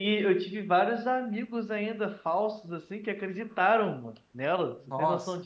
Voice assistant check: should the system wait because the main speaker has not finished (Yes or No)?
No